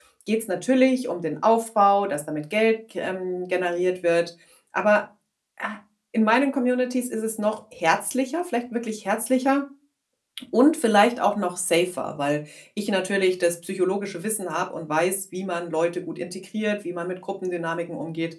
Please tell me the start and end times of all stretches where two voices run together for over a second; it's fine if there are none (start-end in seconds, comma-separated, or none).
none